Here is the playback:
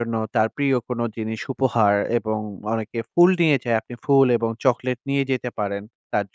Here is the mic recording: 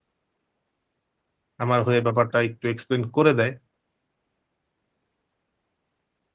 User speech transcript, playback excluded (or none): আমার হয়ে ব্যাপারটা একটু explain করে দেয়।